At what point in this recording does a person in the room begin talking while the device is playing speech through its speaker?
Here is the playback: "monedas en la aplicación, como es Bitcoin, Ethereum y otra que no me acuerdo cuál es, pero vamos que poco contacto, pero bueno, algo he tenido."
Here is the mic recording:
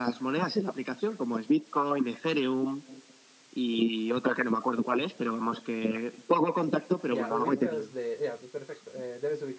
7 s

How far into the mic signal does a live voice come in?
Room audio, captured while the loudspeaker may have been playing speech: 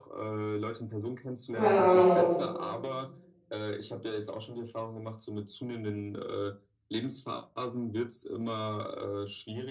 2 s

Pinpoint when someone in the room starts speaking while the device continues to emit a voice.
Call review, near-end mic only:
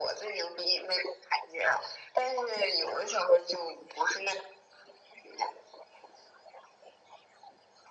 none

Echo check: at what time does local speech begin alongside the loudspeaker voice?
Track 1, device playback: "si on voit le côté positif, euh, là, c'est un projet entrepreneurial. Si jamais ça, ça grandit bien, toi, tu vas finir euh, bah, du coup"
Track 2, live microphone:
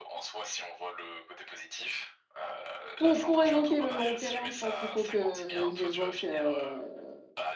3 s

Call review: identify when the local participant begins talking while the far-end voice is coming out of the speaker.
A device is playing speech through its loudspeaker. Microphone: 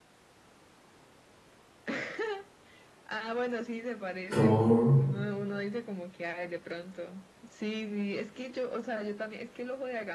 4 s

